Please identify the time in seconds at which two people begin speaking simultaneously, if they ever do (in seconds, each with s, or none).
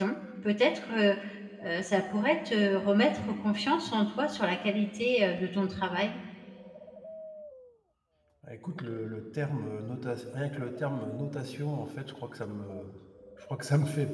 none